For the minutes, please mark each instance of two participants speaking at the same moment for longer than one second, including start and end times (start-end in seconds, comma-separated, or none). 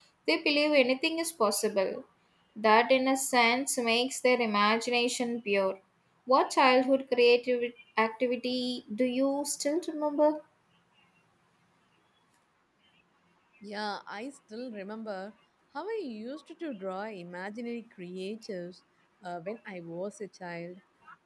none